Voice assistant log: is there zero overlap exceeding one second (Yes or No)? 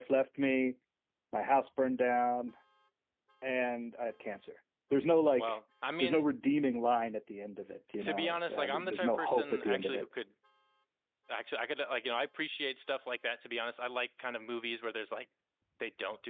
No